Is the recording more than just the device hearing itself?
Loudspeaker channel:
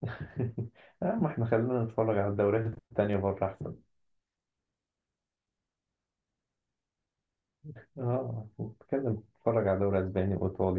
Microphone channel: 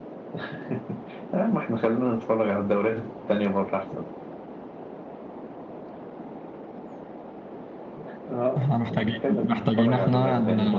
Yes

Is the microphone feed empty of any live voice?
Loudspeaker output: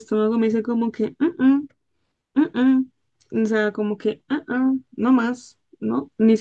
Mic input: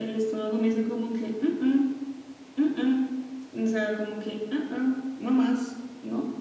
Yes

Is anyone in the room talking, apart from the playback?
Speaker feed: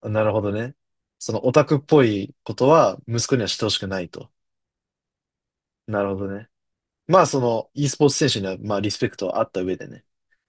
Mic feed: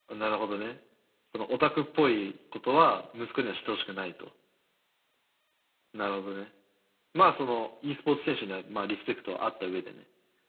No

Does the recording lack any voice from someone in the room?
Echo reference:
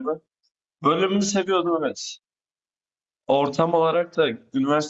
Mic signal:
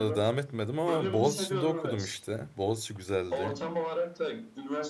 No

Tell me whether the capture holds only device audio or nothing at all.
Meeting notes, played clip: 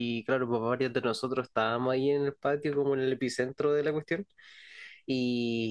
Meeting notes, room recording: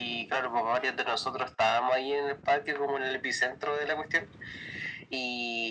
Yes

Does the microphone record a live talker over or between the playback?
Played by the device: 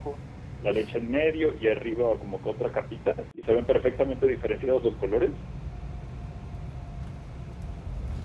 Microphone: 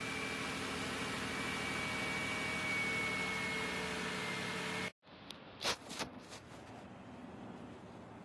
No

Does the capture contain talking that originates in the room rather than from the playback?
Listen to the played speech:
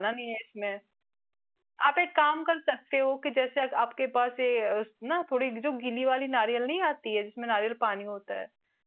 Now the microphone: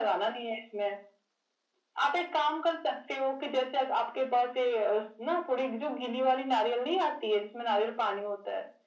No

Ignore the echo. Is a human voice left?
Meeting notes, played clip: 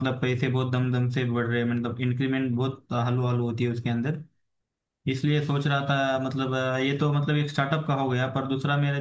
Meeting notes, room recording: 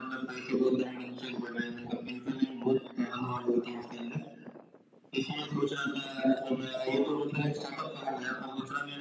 No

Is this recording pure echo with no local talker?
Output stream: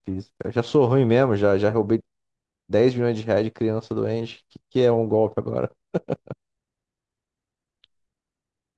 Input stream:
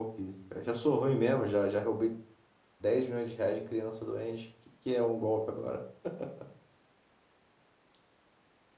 Yes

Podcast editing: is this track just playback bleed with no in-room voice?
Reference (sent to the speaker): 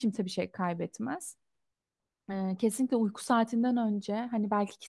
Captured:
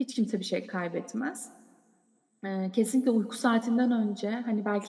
Yes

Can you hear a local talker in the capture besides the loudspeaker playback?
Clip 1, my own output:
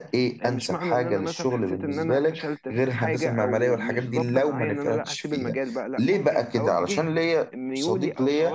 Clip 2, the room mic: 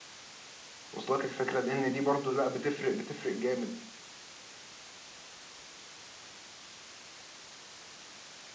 Yes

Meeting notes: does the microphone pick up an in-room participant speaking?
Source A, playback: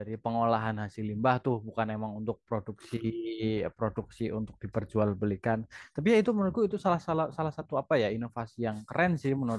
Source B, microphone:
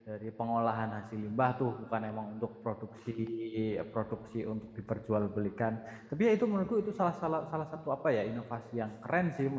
No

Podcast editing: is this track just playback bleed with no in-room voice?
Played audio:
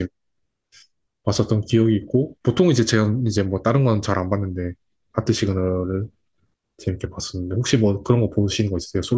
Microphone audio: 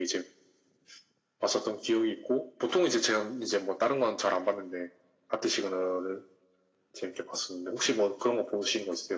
Yes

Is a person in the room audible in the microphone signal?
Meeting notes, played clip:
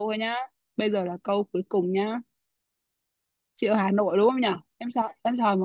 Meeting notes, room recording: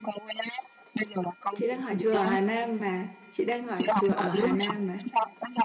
Yes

